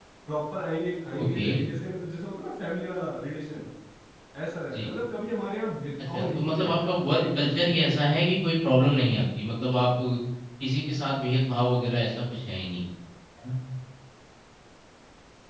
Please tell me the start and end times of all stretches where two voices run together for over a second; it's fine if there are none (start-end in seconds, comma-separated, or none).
6.1-8.0